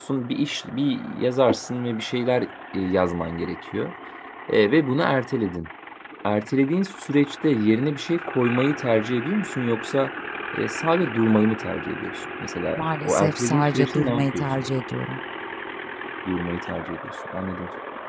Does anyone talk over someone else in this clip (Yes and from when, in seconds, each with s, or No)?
Yes, from 12.8 s